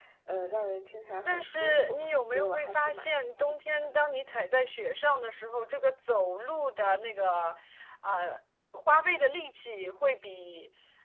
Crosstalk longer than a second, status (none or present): present